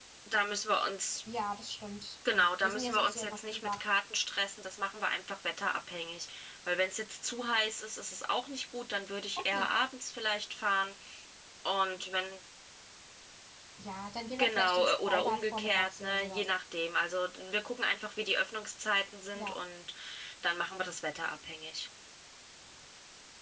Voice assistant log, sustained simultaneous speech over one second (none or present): present